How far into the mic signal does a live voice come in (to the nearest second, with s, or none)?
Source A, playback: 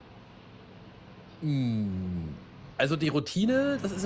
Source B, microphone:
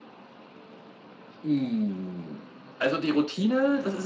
none